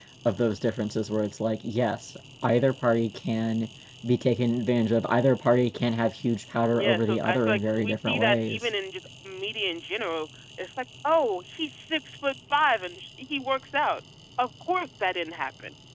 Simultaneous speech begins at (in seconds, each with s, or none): 6.7 s